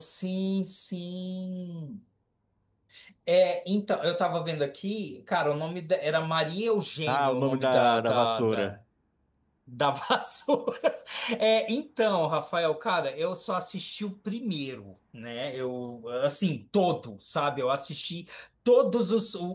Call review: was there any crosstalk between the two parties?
Yes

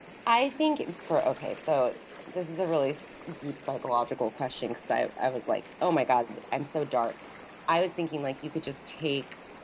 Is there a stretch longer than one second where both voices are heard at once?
No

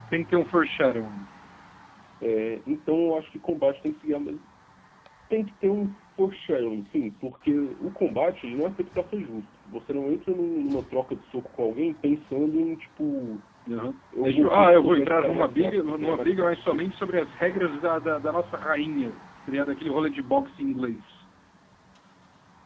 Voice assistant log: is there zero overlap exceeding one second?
No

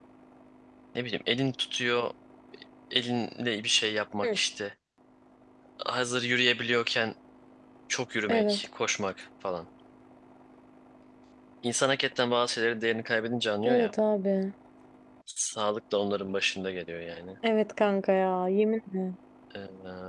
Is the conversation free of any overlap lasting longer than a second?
Yes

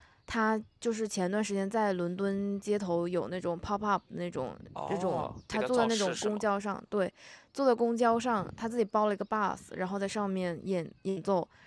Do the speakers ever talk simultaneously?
Yes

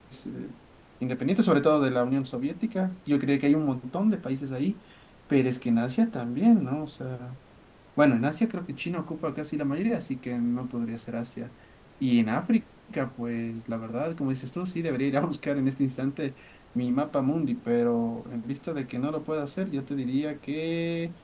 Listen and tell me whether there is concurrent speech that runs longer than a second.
No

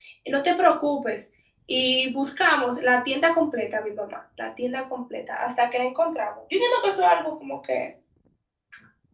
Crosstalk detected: No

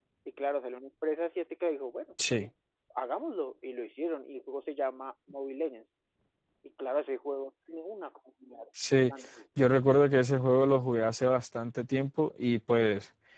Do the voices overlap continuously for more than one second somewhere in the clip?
No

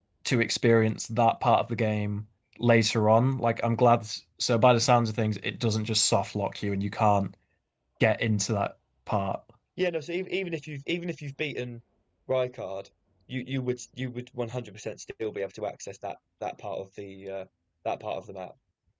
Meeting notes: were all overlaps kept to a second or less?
Yes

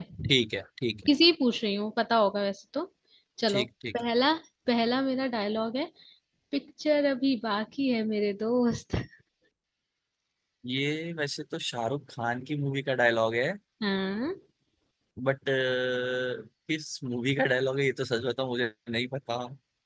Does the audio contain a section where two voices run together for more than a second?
No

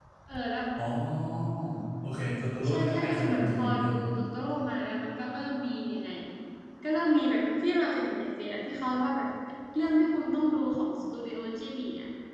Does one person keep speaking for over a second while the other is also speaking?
Yes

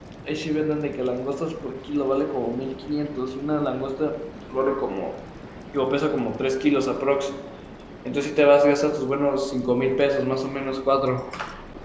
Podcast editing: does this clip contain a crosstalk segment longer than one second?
No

